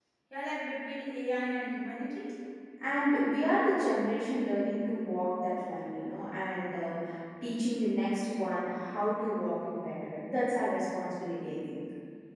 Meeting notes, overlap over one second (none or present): none